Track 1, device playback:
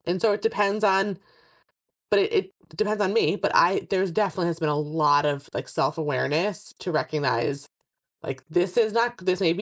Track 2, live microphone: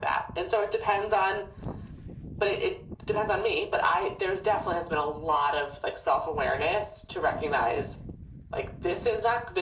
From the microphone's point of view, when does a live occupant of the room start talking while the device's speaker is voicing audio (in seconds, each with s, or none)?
none